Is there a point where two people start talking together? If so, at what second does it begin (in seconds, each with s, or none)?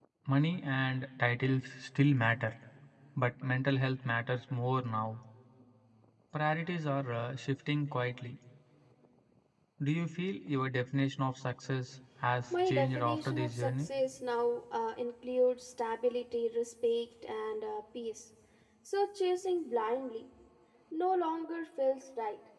12.5 s